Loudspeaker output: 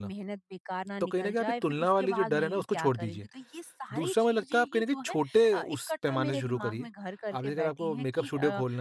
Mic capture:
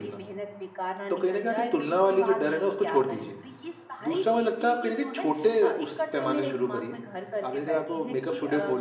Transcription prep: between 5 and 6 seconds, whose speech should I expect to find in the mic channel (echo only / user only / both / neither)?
echo only